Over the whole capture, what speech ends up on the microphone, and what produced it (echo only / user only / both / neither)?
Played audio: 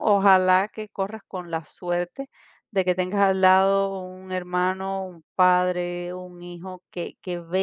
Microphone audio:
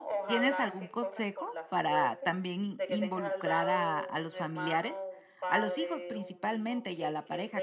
both